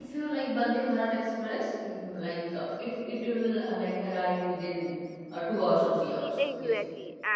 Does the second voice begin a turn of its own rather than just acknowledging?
Yes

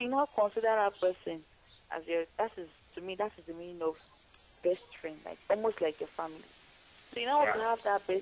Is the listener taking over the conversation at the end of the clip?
No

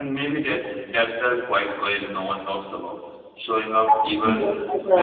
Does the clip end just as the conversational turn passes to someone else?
Yes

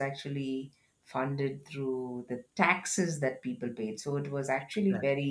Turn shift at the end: No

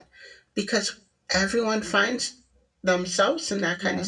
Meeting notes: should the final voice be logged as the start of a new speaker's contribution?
No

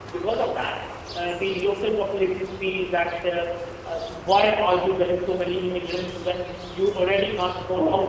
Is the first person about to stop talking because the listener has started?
No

